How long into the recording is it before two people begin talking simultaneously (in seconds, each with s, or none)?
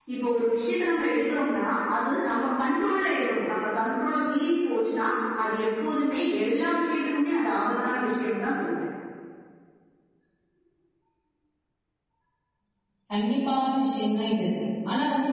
none